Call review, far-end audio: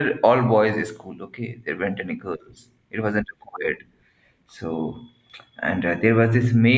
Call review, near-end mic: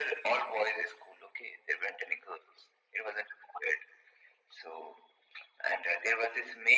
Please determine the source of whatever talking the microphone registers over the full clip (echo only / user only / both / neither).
echo only